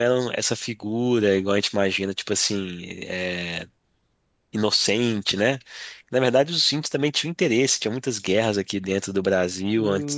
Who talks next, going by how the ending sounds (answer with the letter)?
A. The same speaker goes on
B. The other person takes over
B